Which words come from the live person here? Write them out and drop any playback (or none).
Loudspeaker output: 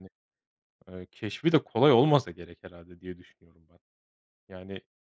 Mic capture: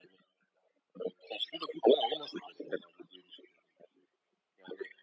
none